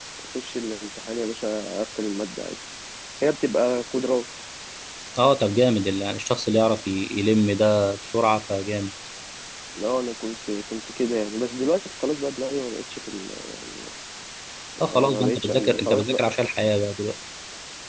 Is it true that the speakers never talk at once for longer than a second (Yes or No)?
No